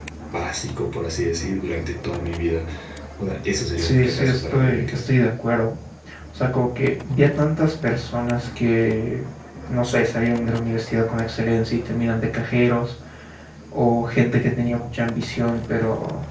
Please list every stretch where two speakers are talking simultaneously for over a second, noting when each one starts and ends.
3.8-5.1

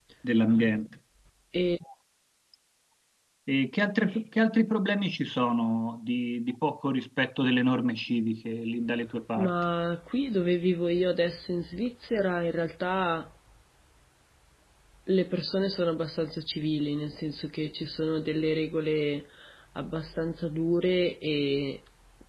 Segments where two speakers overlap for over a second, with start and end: none

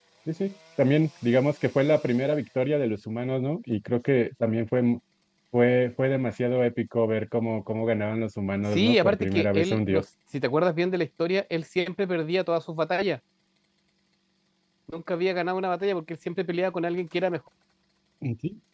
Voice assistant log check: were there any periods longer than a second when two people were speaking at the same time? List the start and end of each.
8.6-10.0

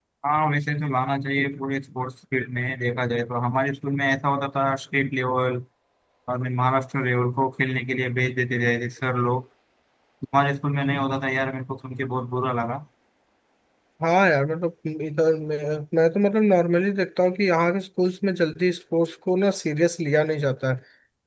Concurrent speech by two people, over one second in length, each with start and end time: none

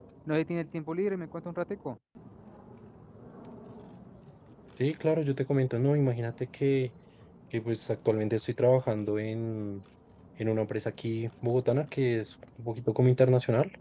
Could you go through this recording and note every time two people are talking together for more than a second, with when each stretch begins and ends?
none

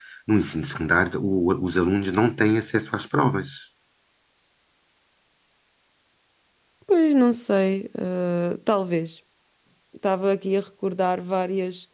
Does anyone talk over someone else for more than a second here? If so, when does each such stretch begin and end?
none

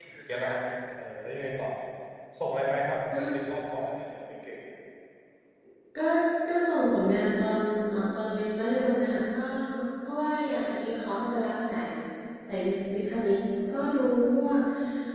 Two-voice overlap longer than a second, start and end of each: none

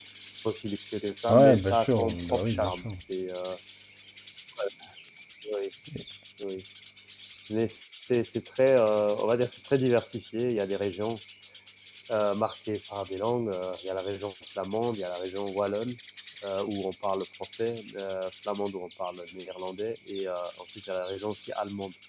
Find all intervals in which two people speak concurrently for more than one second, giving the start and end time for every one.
1.3-2.8

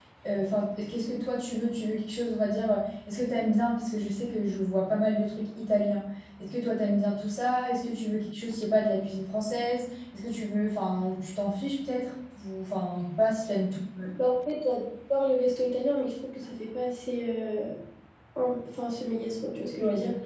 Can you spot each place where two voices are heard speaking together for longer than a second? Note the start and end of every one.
none

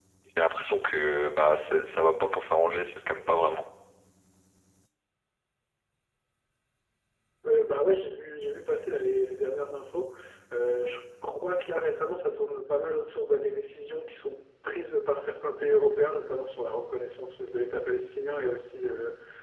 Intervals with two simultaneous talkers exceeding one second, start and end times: none

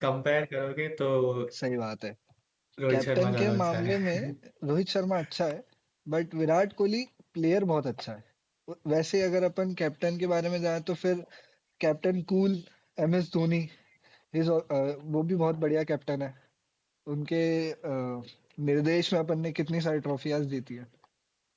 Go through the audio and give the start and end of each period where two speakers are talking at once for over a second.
2.9-4.3

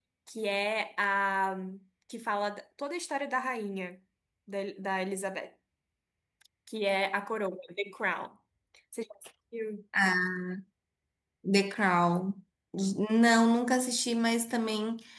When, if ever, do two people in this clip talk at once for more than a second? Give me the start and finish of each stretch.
none

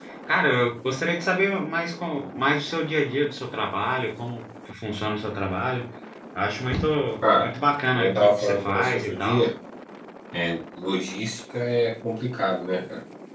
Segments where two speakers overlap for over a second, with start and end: 7.9-9.5

